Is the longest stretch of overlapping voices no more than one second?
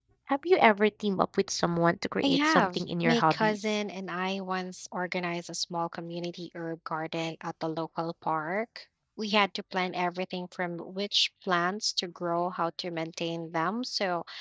No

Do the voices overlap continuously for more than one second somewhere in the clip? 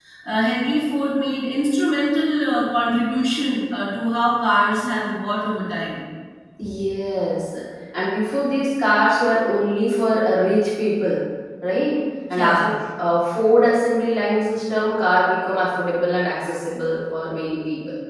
No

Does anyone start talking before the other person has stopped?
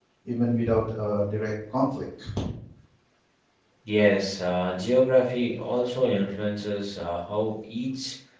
No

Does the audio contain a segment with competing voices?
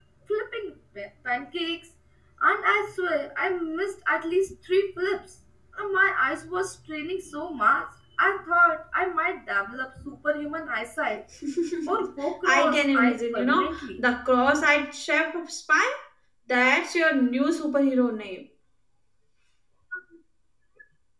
Yes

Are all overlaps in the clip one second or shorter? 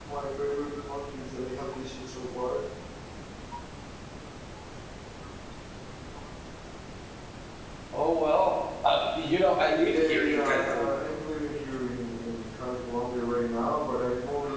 No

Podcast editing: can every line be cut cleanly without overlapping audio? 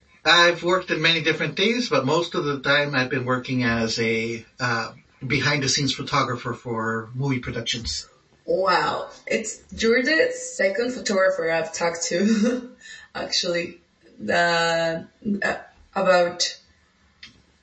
Yes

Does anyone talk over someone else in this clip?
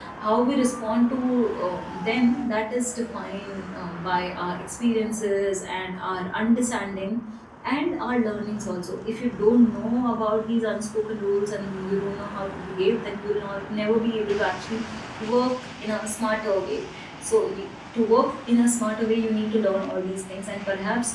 No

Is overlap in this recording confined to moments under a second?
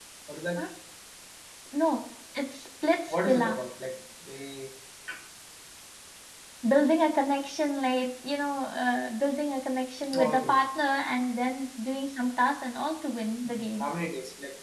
Yes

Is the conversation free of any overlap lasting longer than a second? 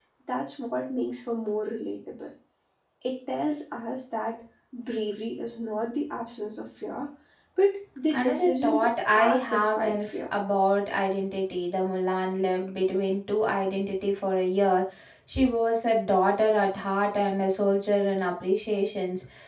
No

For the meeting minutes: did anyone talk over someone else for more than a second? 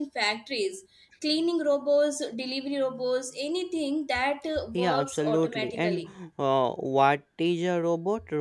Yes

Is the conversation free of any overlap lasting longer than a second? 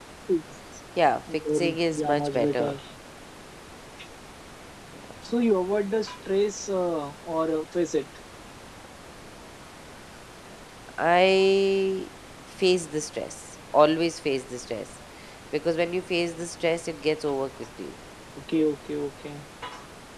No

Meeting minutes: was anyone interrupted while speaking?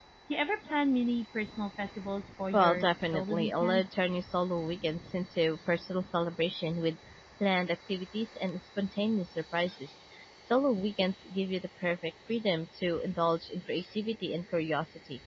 Yes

